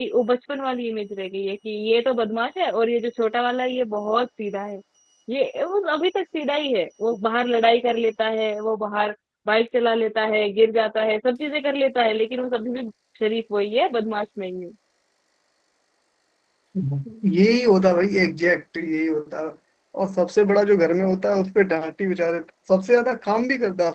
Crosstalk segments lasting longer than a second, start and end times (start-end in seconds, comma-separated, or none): none